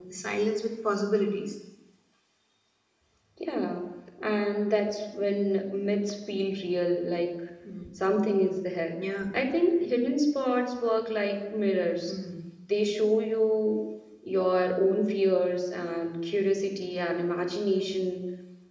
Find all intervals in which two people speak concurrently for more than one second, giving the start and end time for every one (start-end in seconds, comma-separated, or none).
none